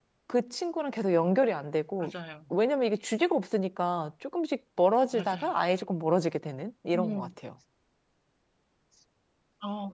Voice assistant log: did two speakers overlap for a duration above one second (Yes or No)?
No